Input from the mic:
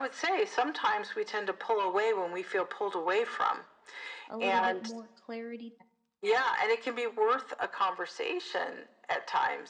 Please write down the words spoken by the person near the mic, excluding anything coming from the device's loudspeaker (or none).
a little bit more clarity that,